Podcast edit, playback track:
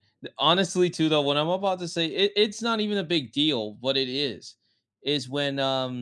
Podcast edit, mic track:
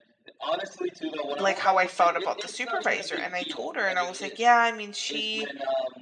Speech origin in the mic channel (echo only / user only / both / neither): both